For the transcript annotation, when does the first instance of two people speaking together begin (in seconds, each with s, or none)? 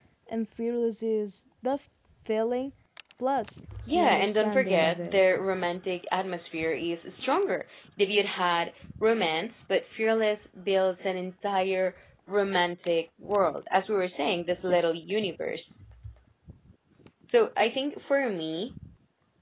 3.9 s